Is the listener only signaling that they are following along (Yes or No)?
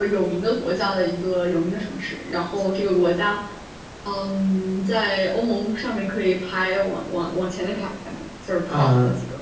No